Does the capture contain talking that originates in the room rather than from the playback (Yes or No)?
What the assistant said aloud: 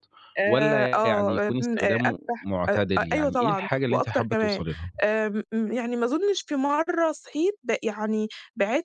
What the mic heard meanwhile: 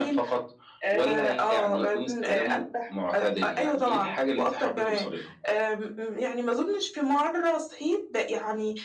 No